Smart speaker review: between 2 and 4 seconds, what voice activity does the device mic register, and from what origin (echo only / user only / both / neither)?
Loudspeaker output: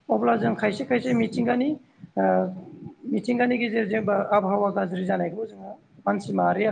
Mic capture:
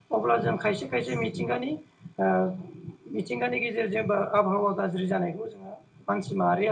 echo only